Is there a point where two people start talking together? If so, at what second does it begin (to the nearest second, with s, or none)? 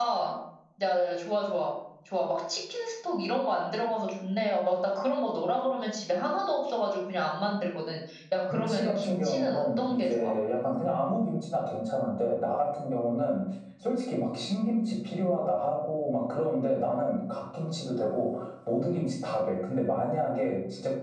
9 s